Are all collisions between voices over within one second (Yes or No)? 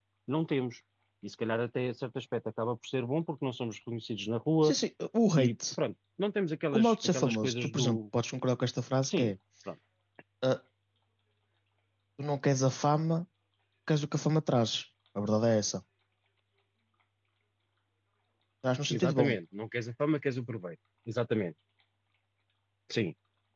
No